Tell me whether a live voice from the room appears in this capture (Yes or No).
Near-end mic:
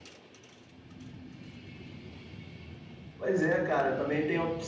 Yes